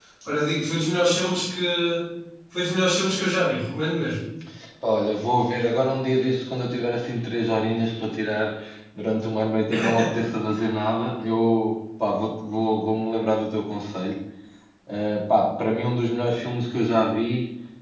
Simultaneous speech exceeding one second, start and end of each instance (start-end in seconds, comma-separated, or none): none